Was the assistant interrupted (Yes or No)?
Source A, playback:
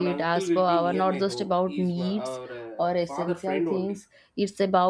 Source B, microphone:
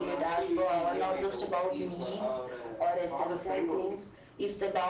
No